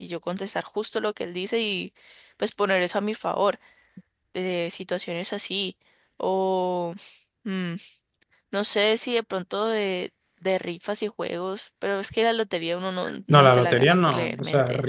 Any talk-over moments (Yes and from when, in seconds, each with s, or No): Yes, from 13.0 s